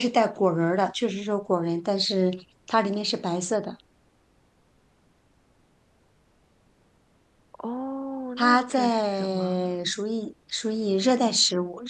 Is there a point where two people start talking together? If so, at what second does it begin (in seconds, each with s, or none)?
8.4 s